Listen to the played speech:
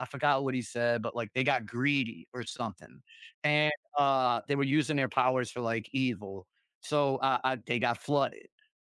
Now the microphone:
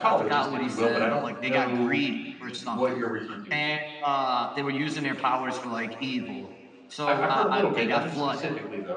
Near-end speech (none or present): present